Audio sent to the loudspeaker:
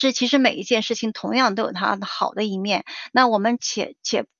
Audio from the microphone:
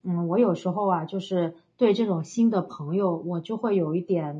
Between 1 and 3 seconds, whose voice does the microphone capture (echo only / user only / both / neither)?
user only